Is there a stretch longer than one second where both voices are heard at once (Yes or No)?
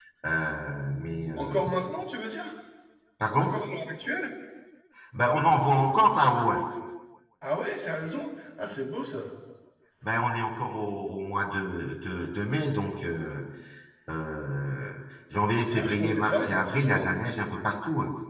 Yes